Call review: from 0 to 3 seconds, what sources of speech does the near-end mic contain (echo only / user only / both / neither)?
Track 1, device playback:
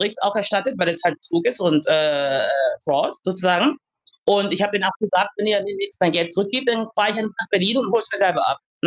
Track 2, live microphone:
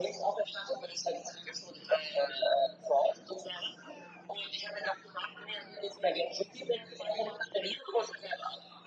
echo only